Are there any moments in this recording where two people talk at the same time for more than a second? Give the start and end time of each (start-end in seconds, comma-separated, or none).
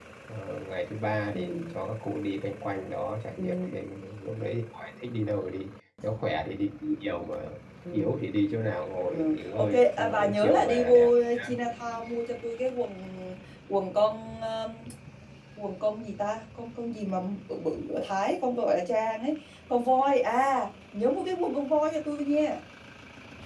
9.1-11.5